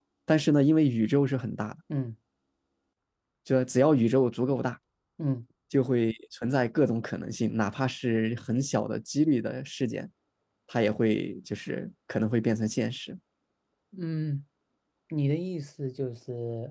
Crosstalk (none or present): none